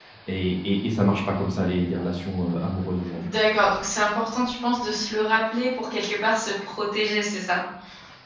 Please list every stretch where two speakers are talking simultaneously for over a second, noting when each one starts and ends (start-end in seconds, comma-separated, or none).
none